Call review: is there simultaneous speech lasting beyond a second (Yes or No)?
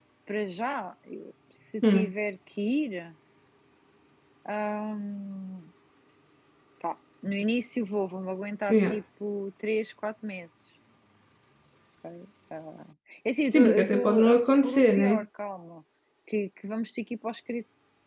Yes